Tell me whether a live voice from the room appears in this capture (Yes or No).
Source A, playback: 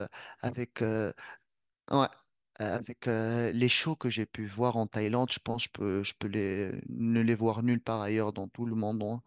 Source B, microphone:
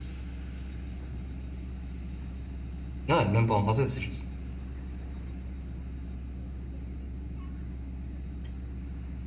Yes